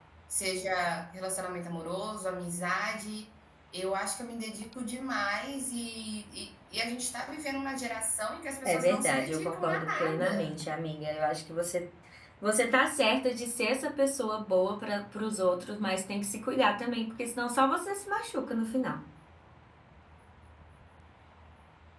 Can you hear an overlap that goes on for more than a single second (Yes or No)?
Yes